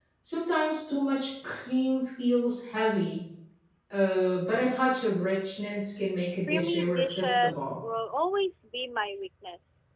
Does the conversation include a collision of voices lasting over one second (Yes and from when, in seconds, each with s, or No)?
Yes, from 6.5 s